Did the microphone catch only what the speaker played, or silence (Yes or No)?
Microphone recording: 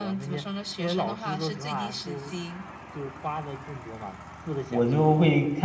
No